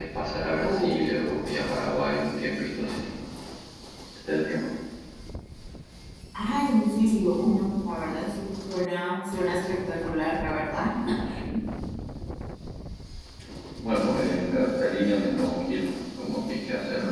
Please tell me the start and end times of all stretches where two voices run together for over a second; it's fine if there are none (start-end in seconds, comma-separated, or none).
none